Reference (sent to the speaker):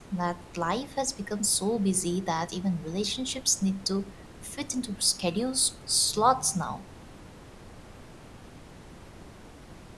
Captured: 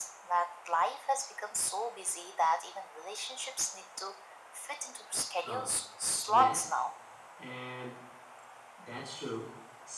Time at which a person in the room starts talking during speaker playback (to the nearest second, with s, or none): 5 s